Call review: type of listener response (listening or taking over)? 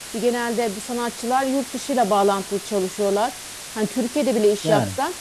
listening